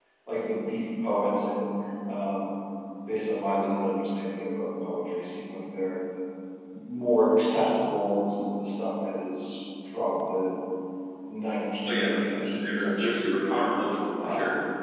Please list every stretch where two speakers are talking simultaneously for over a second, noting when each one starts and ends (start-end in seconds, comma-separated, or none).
11.9-13.7